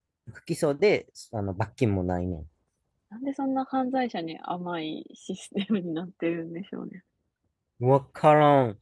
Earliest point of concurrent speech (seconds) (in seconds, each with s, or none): none